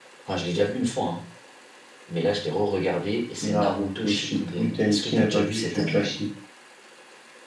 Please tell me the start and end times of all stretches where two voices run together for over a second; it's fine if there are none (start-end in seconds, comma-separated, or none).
3.4-6.2